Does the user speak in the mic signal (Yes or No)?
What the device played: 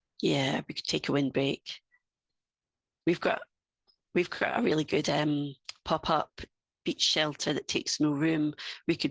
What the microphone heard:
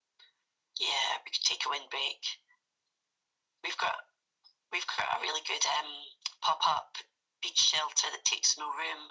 No